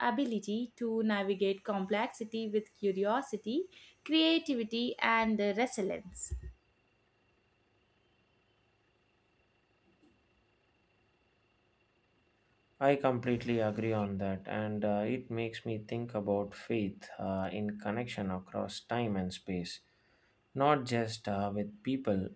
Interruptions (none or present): none